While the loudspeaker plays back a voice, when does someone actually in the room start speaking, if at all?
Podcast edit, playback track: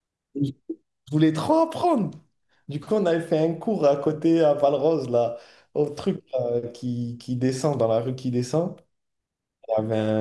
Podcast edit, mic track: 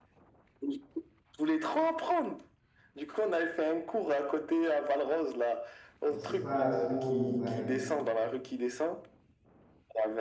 6 s

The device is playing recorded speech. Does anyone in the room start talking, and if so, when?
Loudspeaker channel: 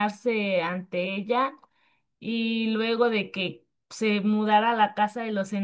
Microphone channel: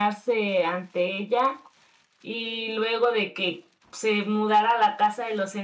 none

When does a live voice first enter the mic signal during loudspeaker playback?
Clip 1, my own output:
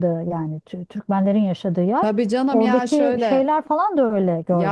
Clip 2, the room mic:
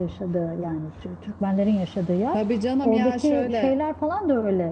none

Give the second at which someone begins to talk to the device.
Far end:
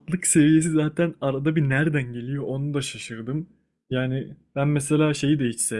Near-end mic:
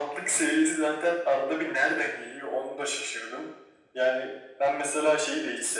none

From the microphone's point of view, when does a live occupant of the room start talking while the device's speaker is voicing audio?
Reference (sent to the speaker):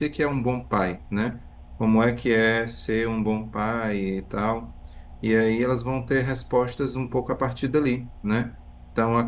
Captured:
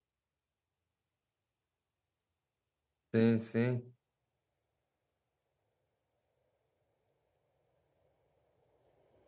3 s

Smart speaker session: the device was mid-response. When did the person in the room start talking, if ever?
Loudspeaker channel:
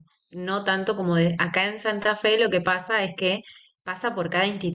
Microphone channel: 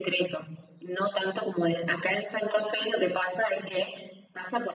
none

